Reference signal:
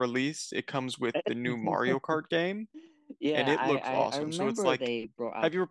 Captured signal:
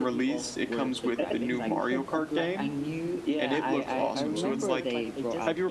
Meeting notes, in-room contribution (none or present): present